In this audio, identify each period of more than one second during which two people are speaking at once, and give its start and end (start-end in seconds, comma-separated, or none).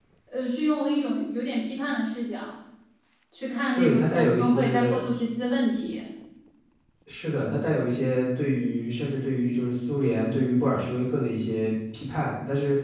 3.8-5.0